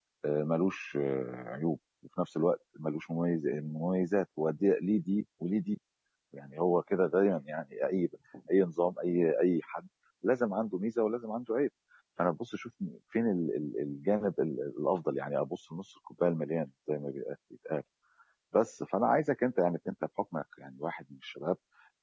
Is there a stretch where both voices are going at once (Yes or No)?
No